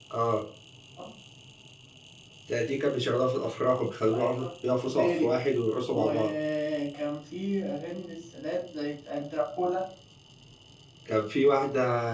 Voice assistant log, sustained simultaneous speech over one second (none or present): none